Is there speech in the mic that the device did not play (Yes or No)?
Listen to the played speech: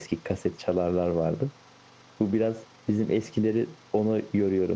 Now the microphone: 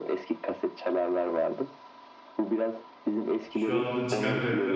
Yes